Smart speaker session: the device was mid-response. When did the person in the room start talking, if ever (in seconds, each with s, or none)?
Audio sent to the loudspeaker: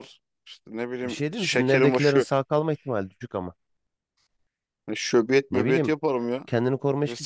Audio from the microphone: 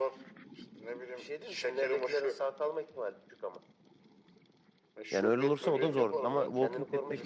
5.1 s